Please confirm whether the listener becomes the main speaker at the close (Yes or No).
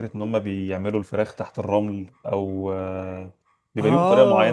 Yes